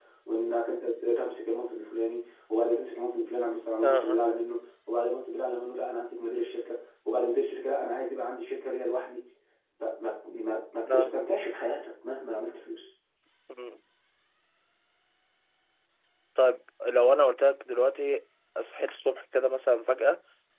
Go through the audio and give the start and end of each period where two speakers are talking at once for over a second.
none

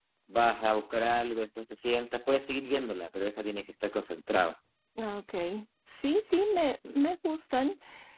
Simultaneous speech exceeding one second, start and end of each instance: none

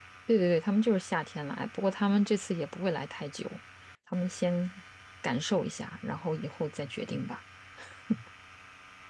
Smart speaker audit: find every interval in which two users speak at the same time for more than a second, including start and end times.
none

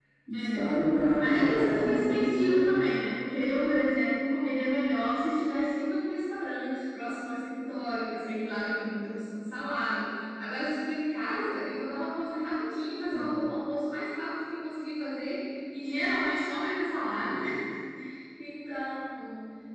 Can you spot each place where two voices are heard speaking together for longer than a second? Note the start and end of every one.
1.2-2.8

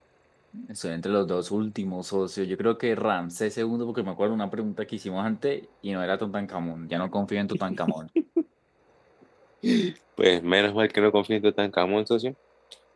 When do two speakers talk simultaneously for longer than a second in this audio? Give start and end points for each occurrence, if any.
none

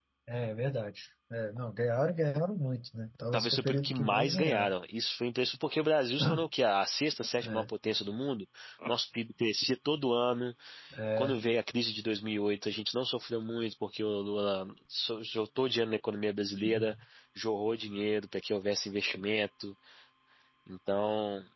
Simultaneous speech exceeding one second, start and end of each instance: 3.3-4.7

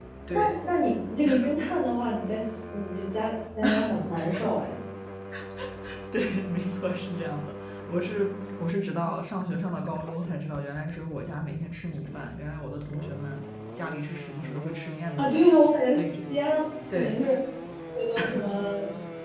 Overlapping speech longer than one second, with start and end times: none

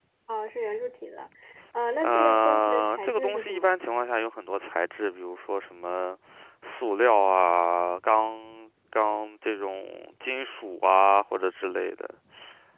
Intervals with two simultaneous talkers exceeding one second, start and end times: 2.0-3.8

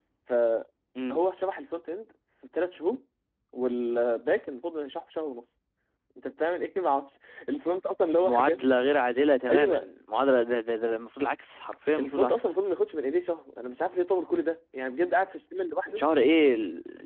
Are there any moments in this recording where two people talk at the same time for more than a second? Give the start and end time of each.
none

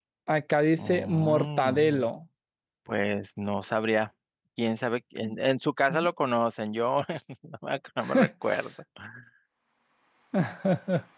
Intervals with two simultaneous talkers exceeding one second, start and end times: 0.8-2.1

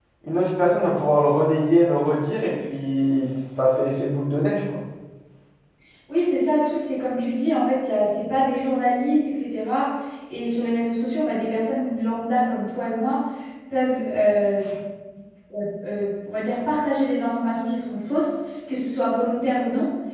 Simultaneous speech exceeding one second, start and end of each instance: none

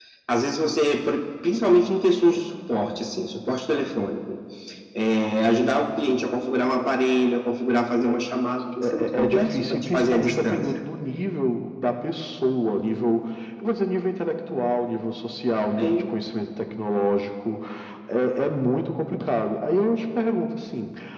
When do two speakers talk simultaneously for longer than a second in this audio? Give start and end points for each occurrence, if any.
8.8-10.6

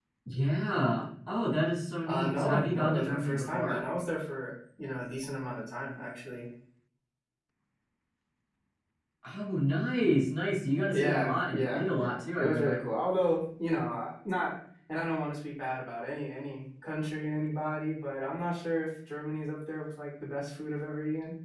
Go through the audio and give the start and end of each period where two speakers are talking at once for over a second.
2.1-3.8, 10.9-12.8

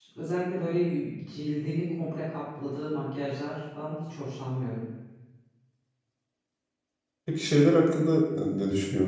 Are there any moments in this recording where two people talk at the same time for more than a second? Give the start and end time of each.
none

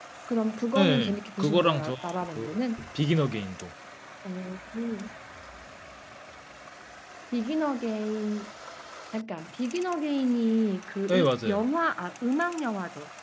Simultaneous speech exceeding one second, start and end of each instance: 0.8-2.5

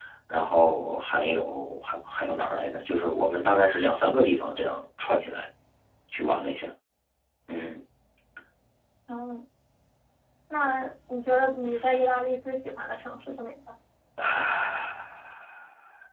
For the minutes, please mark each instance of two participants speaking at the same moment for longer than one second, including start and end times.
none

